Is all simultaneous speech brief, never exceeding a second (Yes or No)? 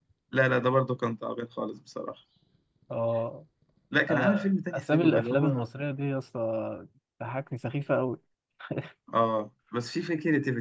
No